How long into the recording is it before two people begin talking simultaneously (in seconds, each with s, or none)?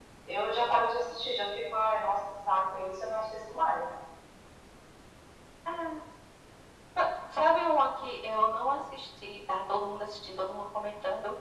none